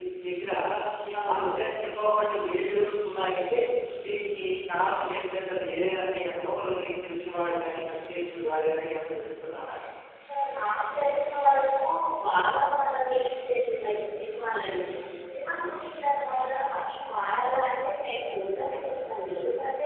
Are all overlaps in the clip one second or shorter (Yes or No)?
Yes